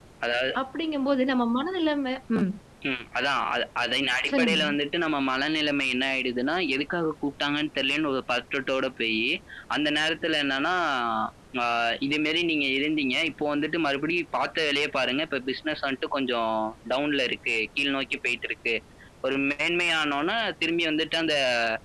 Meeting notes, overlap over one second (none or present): none